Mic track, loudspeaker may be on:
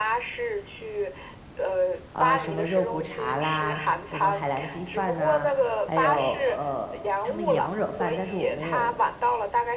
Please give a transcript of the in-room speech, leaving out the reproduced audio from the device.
啊、什么肉骨茶啦，什么海南鸡饭呐、还有呃，他们羊惹饭，但是我没有

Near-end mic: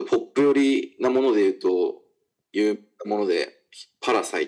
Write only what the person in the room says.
none

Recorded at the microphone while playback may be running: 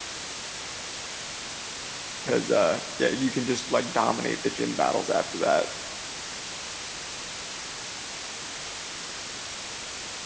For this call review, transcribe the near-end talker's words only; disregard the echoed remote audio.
because uh yeah, you can just like dominate the gym battles after that.

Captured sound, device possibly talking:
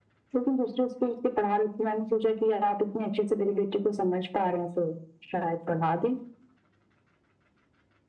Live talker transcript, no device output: none

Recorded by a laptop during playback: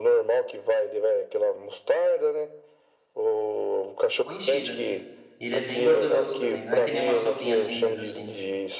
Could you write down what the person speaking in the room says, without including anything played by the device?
boa enchida. Ele é bem gorduroso também, não é que nem uma sopinha simples assim.

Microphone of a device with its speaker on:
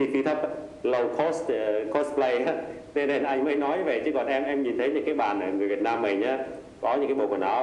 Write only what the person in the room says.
none

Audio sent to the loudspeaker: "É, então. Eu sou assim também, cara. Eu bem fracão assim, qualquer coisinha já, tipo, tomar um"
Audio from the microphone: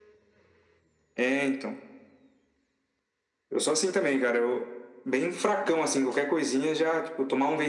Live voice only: none

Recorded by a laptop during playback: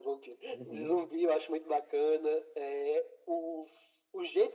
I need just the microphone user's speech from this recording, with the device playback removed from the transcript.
Uhum.

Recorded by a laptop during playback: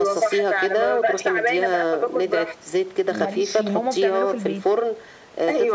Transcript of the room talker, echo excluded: ماليش فيه ماما بتعمله في البيت

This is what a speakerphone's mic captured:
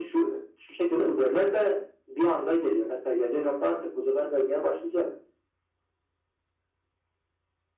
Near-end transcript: none

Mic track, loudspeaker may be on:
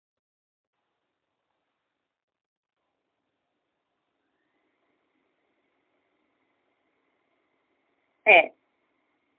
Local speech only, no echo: É,

